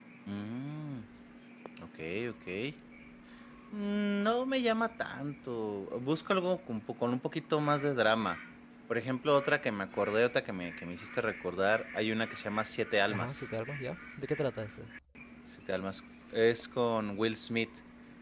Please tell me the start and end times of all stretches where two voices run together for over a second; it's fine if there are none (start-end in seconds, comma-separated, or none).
none